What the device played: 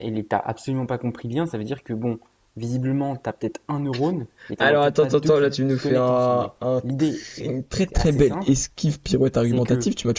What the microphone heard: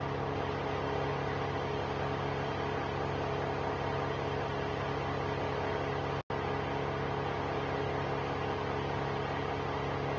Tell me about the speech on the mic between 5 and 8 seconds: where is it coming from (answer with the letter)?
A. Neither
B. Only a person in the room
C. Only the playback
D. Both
A